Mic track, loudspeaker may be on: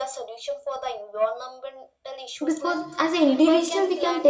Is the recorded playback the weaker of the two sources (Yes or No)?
Yes